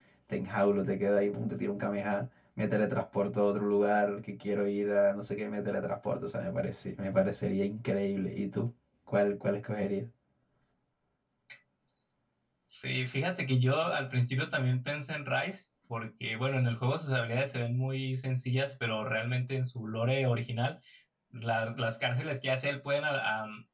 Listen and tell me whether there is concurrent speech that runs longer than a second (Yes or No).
No